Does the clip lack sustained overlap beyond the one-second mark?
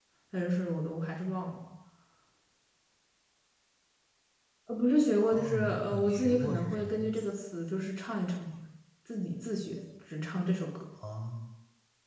No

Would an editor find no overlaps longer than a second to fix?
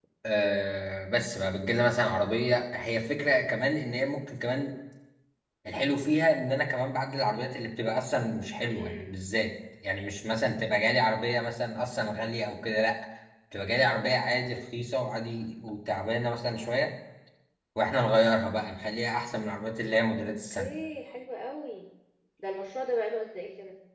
Yes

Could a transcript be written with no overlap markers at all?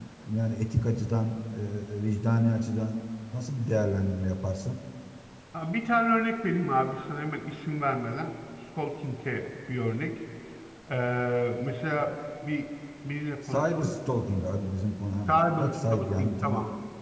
No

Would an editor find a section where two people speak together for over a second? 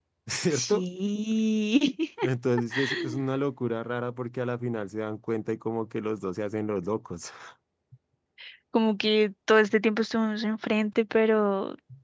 No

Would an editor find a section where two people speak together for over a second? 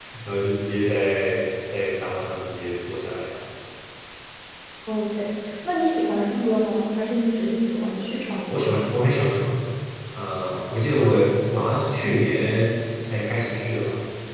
No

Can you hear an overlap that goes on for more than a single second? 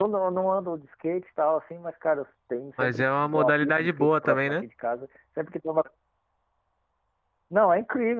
Yes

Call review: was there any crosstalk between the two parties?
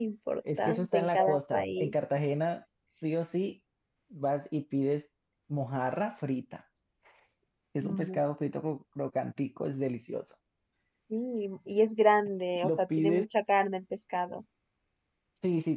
Yes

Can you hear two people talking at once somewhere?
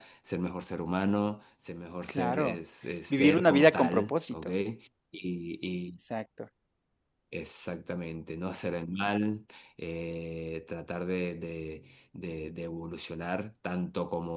Yes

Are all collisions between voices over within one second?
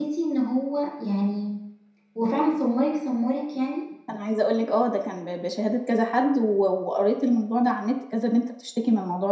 Yes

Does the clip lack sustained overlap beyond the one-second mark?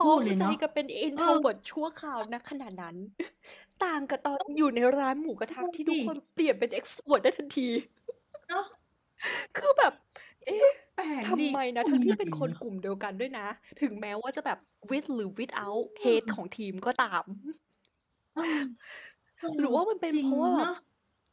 No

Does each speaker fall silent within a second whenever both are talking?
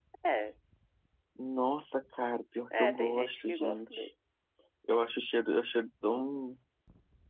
No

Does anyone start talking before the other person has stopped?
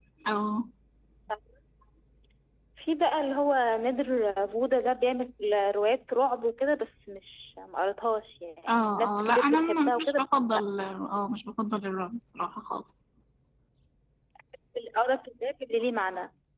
Yes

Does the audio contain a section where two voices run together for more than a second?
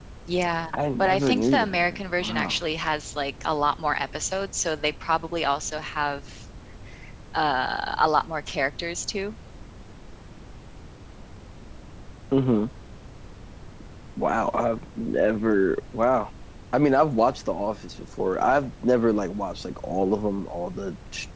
Yes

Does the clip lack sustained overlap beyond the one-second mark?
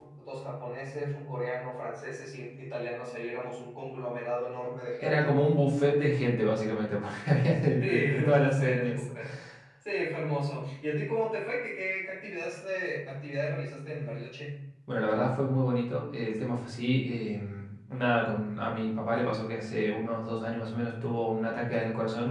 No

